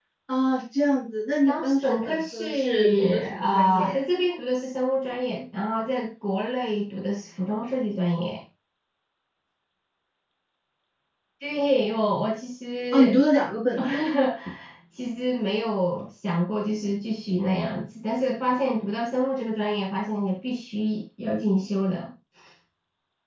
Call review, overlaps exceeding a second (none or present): present